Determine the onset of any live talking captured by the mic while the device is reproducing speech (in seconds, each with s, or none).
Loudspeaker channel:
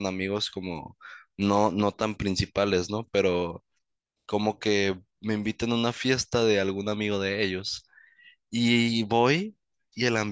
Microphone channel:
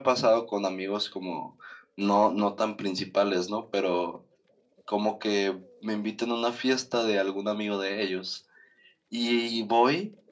none